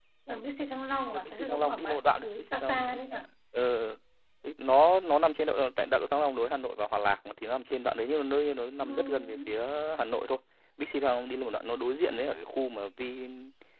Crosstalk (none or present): present